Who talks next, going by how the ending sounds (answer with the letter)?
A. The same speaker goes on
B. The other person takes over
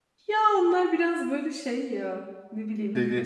A